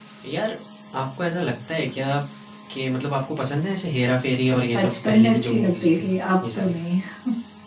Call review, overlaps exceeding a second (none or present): present